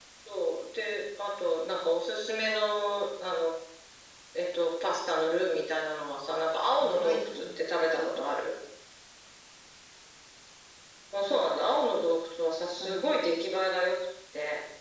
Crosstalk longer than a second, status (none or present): present